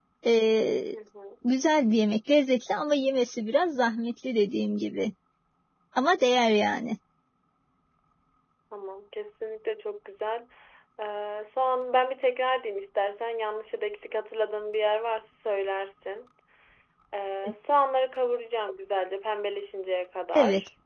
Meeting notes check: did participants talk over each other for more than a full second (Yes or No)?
No